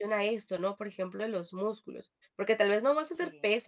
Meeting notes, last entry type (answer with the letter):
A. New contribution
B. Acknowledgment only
B